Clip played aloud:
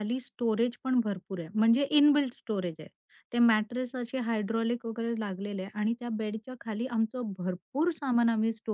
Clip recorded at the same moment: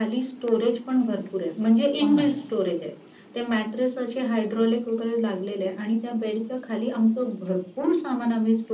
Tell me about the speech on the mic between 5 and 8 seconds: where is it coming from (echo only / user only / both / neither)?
echo only